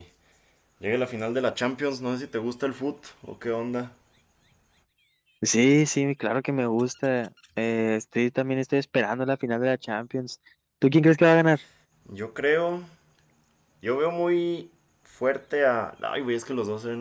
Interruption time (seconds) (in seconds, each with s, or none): none